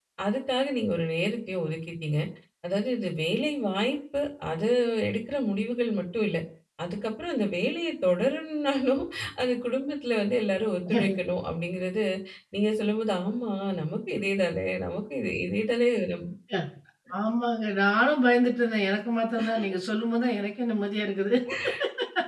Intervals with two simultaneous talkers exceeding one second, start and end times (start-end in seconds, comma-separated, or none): none